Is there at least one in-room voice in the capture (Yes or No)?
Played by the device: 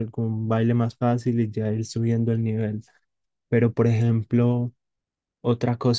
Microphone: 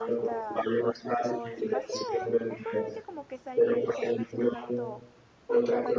Yes